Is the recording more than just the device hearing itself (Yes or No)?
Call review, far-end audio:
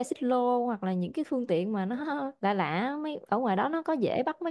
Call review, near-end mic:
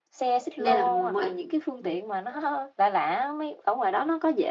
Yes